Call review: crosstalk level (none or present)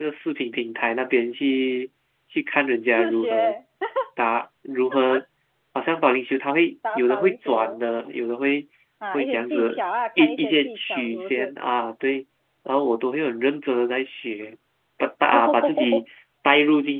present